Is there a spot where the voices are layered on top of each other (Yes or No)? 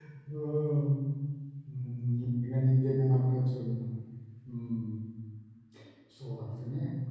No